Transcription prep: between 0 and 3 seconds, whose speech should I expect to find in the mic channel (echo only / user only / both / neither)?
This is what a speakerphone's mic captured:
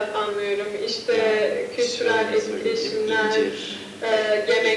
both